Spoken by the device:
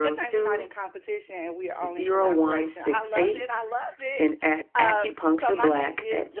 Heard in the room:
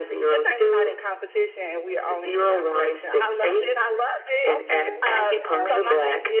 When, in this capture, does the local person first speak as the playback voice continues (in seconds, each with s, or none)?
4.5 s